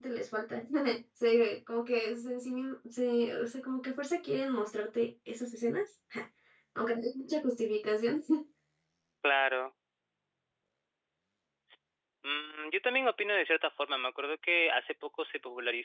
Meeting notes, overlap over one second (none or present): none